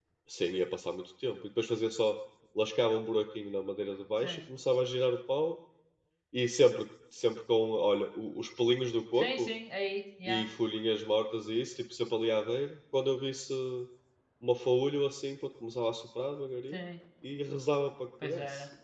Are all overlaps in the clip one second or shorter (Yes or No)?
Yes